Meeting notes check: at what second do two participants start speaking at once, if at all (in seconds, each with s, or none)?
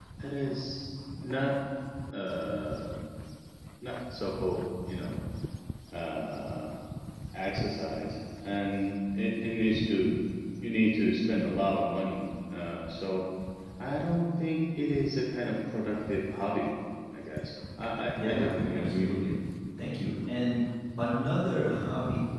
18.1 s